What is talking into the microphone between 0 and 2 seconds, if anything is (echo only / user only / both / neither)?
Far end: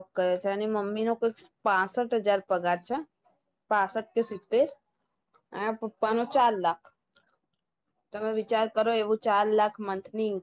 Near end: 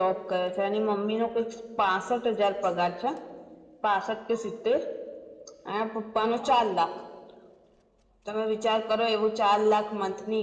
echo only